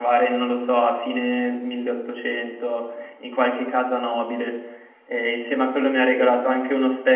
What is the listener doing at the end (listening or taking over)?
listening